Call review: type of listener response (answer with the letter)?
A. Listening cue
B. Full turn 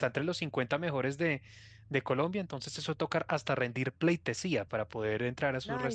B